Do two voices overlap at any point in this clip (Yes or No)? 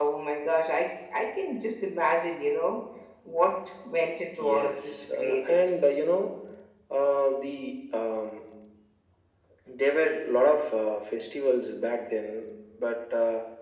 Yes